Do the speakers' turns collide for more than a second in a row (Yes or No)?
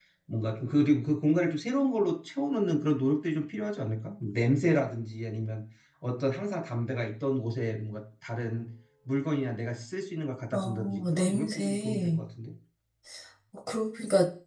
Yes